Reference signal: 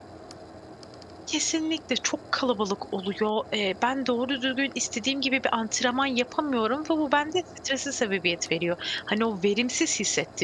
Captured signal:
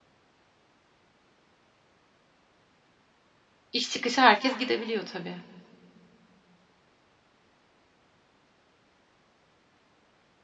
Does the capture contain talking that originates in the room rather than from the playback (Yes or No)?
Yes